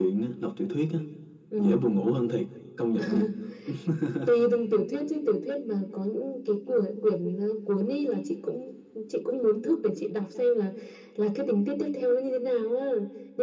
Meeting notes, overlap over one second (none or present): none